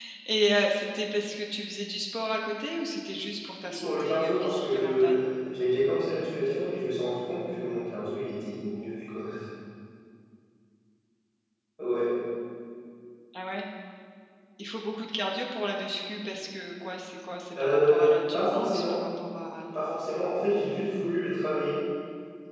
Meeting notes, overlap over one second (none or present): present